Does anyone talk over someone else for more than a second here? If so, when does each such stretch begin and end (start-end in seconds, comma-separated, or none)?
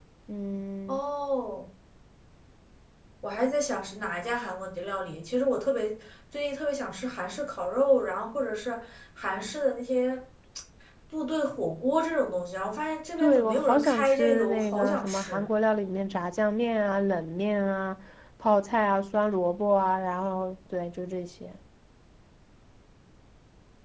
13.2-15.5